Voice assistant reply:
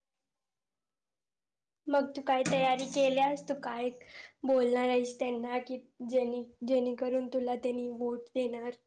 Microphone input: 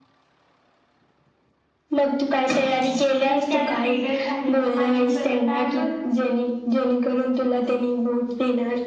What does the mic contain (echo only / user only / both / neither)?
both